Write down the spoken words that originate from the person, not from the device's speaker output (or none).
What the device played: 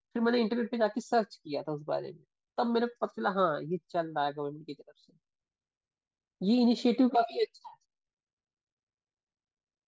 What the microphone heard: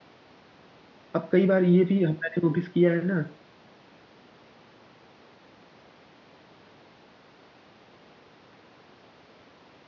अब कई बार ये भी हमने नोटिस किया है ना